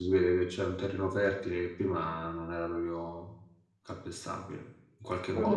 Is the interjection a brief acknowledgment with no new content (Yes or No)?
No